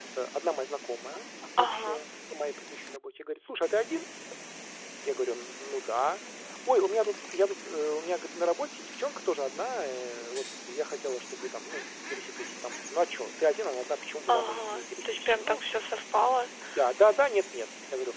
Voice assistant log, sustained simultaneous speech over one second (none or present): present